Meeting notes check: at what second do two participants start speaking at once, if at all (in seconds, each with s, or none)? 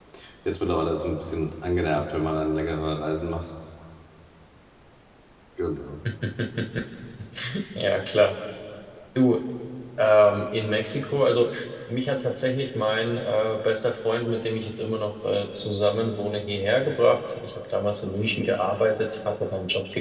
none